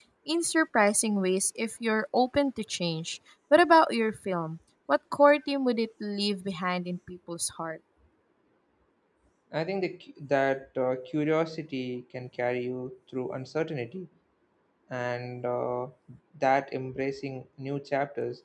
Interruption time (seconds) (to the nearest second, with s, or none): none